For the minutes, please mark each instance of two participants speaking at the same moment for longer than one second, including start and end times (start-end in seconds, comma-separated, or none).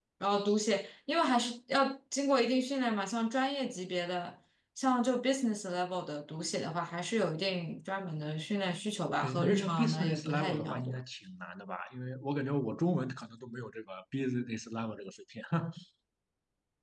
9.2-11.0